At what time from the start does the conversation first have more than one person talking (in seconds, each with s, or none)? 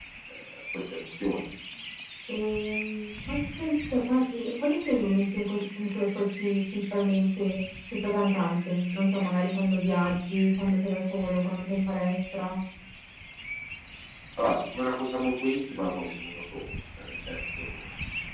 none